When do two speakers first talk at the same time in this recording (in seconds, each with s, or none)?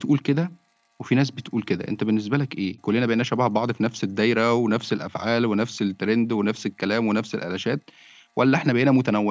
none